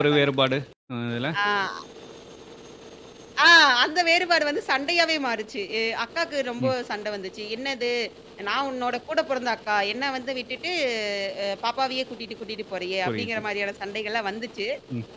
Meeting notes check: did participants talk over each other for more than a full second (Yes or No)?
No